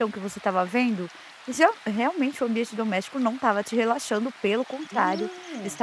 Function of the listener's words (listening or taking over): listening